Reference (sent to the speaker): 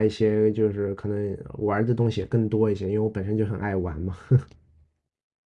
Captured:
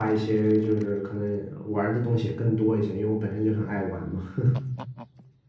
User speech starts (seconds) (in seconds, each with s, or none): none